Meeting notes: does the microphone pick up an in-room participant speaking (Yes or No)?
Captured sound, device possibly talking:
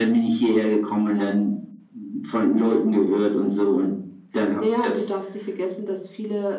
No